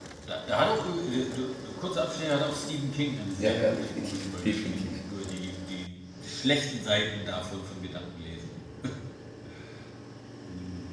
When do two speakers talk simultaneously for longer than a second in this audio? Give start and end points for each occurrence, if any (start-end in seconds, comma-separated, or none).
3.4-5.0